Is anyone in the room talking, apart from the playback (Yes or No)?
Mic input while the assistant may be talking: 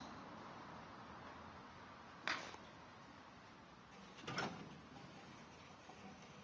No